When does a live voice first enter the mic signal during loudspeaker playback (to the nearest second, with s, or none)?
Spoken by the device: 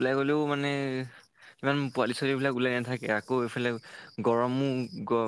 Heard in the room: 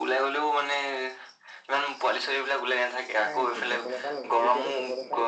3 s